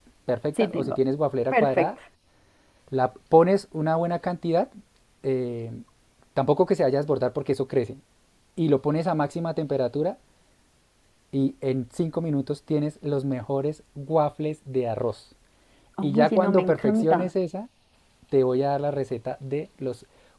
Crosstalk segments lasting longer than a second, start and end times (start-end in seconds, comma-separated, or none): 16.0-17.3